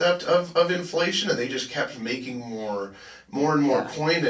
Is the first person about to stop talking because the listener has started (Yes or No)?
No